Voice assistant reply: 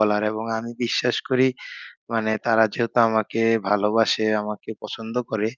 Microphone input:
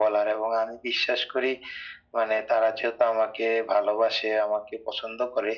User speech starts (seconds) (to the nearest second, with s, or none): none